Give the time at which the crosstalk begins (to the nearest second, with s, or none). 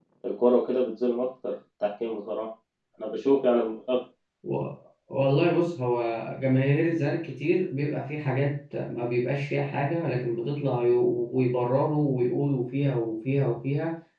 none